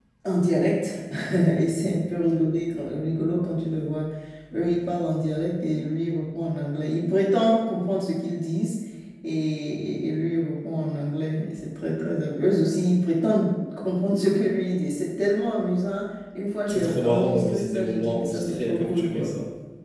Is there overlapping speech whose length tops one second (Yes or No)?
Yes